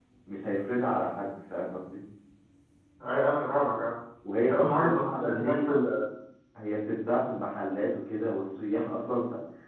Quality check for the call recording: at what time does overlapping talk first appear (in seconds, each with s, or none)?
4.4 s